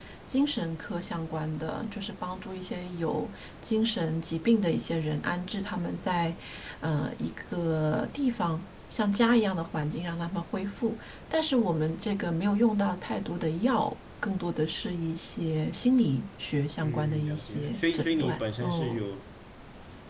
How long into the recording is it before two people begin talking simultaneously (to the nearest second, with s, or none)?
17 s